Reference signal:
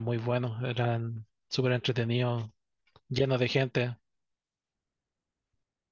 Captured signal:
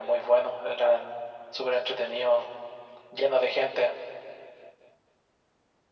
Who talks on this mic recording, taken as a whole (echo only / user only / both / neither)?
echo only